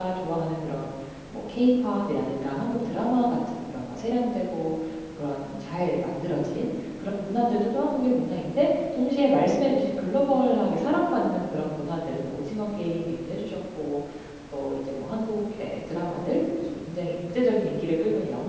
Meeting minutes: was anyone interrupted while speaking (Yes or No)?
No